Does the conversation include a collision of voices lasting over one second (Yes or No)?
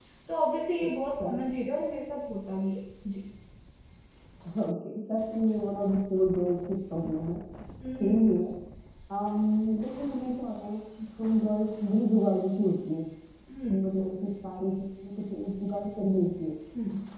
No